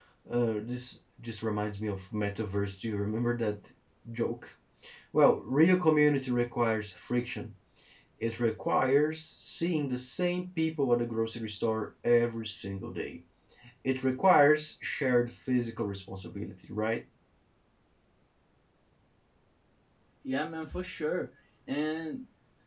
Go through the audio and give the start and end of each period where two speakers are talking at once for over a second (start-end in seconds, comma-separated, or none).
none